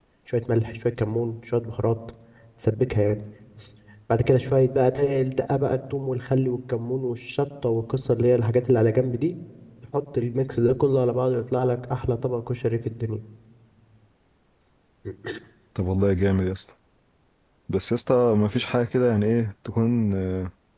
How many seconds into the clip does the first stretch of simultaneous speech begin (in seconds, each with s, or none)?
none